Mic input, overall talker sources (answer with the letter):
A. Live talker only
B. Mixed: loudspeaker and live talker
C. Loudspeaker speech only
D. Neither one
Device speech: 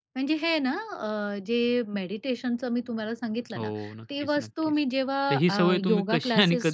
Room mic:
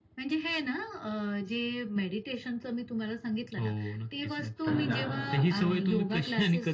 B